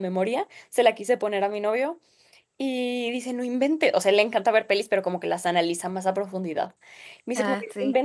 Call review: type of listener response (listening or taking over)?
listening